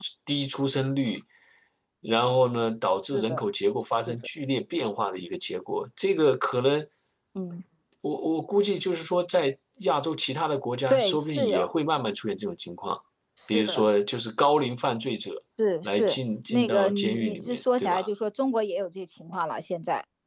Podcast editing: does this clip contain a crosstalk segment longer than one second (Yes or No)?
Yes